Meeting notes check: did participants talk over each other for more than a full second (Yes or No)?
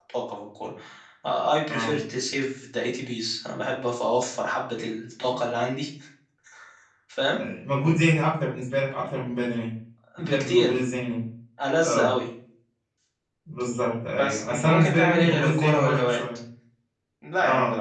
Yes